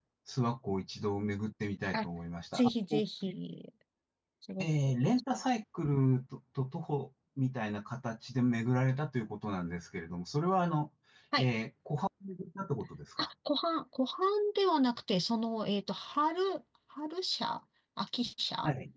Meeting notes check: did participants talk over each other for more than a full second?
No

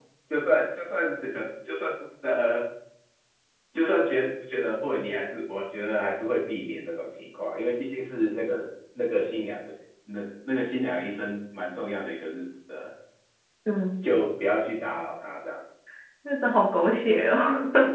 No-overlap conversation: Yes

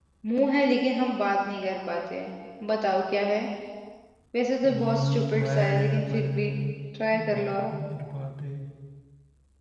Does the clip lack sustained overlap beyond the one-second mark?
No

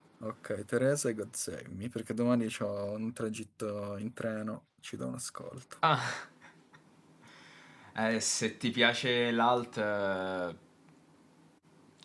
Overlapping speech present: No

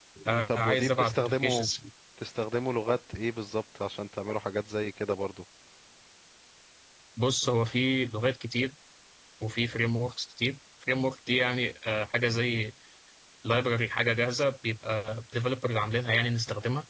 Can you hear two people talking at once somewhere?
Yes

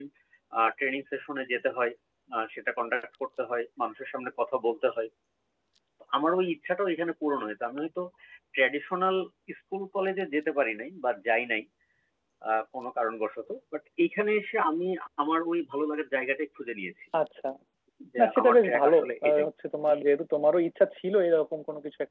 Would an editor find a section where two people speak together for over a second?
Yes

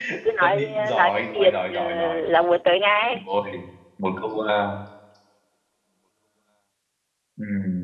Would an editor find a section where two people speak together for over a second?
Yes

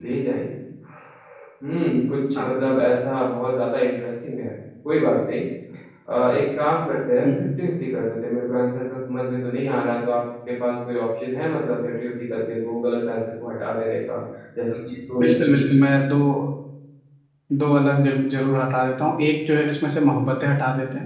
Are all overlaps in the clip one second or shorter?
Yes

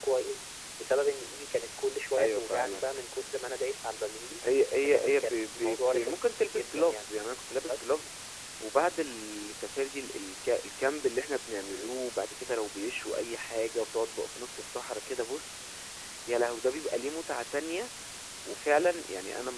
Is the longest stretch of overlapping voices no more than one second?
No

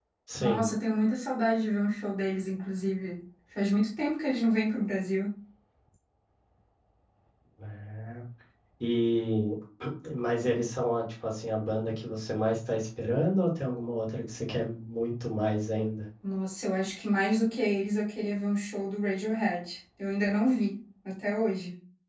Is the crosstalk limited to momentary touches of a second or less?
Yes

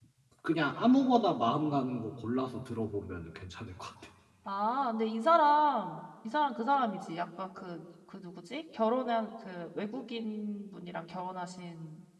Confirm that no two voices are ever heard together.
Yes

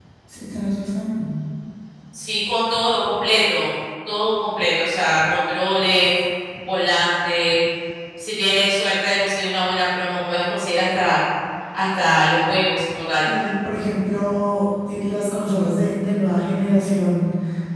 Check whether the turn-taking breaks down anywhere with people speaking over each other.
No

